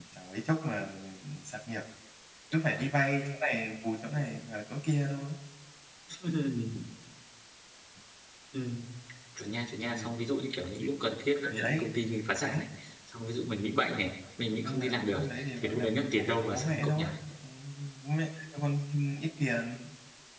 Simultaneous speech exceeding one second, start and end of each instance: 14.6-17.0

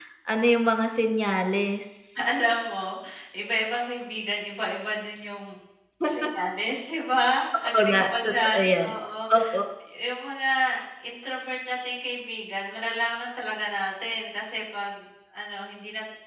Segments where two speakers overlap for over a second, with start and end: 7.6-8.9

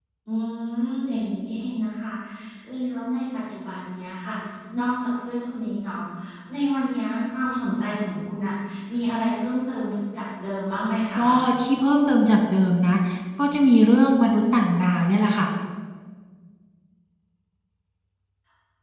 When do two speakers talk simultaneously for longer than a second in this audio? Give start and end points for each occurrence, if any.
none

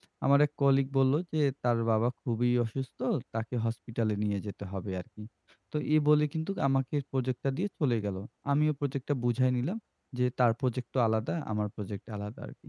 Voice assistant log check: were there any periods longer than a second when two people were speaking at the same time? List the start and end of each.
none

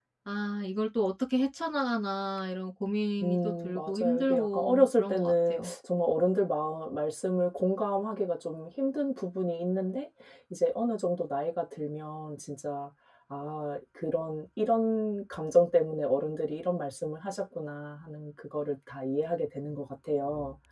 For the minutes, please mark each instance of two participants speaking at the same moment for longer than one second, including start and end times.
3.2-5.7

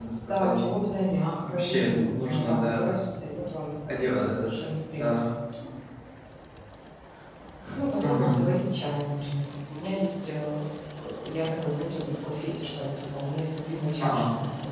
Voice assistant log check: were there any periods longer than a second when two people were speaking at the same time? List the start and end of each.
1.4-2.9

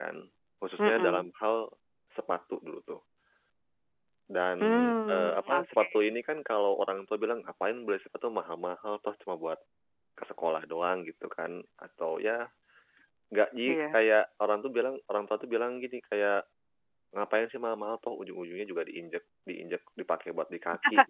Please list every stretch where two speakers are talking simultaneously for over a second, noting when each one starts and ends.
4.6-5.9

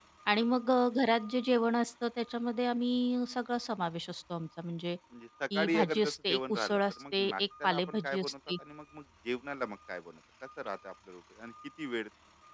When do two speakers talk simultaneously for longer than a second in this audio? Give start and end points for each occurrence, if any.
5.5-8.3

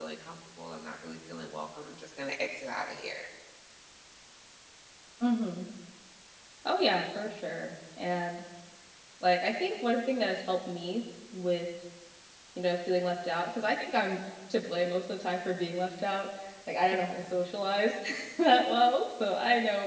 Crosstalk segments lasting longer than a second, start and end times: none

